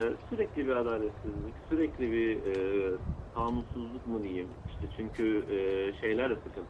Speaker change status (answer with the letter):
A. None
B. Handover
A